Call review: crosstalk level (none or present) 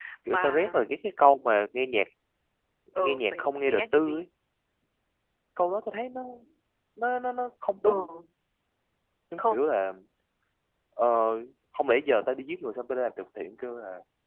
present